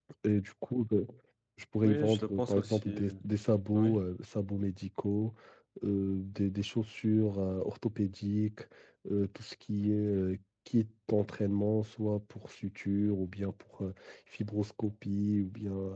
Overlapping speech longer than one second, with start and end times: 1.8-3.1

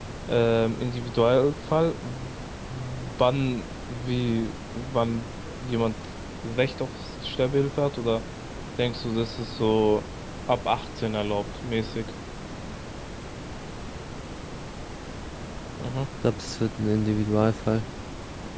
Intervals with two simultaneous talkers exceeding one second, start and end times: none

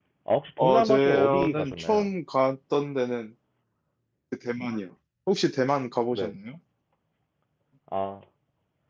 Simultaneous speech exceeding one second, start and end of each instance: 0.6-2.1

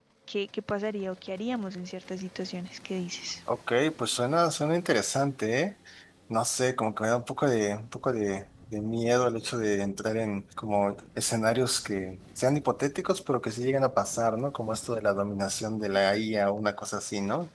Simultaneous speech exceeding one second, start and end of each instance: none

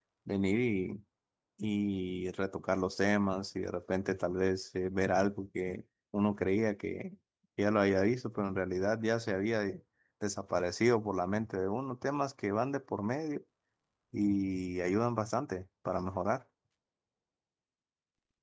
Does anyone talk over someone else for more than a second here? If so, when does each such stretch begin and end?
none

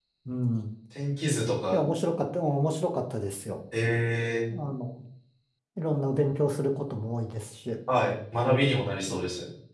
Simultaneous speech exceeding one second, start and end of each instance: none

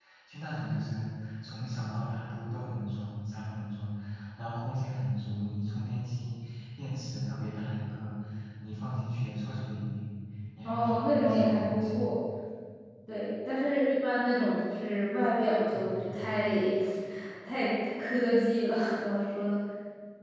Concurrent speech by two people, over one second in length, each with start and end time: 10.6-12.0

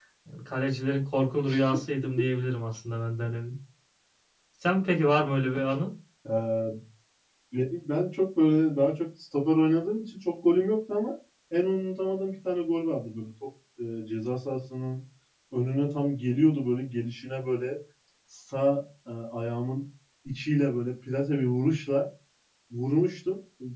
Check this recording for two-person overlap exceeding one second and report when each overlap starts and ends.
none

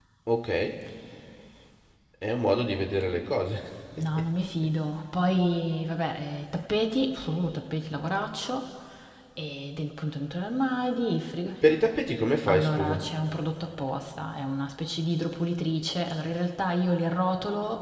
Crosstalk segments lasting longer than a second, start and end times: none

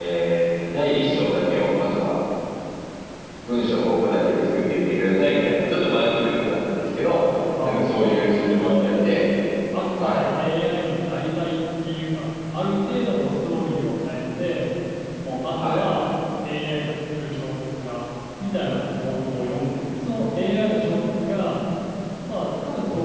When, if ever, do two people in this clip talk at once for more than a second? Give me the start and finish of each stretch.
7.6-8.9

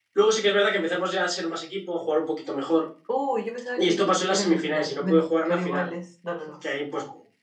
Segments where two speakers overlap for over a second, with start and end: 3.8-5.9

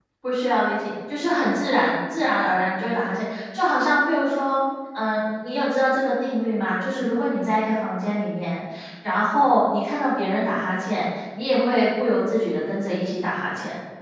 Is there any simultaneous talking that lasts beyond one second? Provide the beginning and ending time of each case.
none

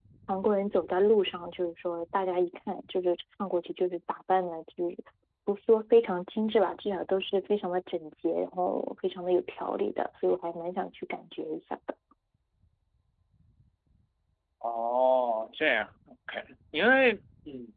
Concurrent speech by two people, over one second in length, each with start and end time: none

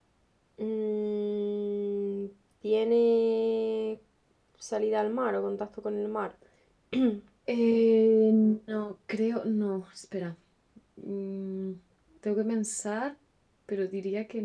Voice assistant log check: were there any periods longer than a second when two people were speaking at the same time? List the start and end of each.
none

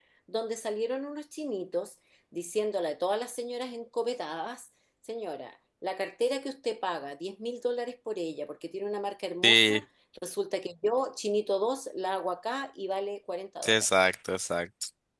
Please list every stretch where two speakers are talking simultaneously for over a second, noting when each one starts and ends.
none

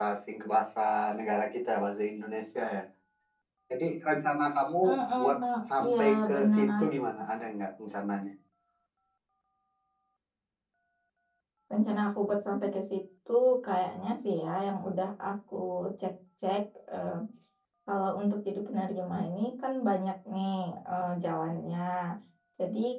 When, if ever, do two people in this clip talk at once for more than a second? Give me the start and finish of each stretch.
5.2-6.8

